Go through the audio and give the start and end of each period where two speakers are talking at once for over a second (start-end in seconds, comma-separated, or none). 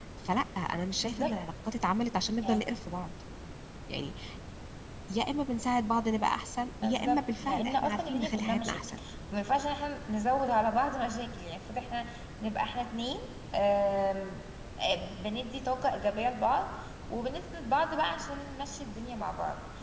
6.8-8.8